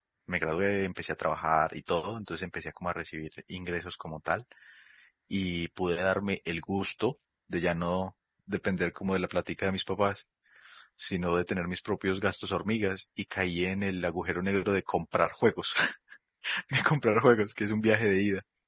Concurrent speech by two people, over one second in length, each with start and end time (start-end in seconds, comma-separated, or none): none